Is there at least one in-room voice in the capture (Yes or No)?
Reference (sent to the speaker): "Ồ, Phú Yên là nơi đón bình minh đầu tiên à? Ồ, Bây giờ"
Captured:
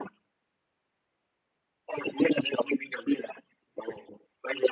No